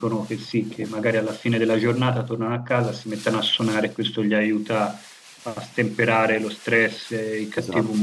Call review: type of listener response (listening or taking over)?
listening